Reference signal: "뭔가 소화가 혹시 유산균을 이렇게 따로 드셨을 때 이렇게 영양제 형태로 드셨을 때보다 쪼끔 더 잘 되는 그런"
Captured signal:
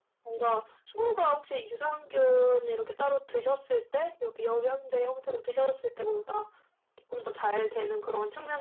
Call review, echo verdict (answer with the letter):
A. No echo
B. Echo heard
B